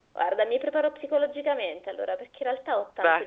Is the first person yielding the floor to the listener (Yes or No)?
No